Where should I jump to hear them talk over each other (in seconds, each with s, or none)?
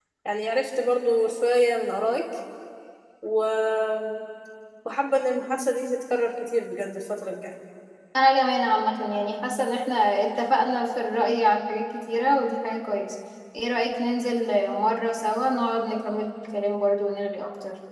none